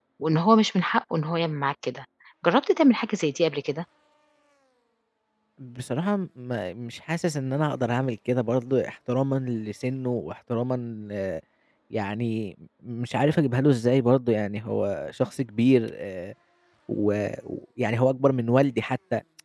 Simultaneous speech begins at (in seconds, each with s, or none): none